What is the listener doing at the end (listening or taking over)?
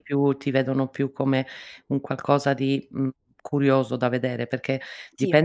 listening